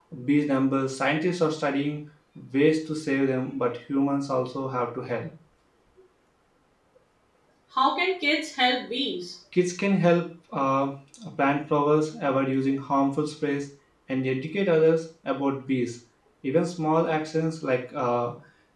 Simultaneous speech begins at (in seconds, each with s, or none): none